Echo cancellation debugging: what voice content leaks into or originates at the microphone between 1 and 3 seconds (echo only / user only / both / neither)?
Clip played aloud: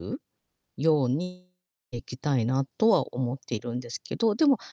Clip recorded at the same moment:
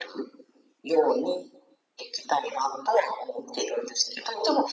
echo only